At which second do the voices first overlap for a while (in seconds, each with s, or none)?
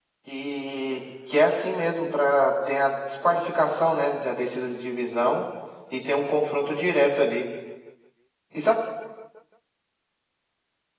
none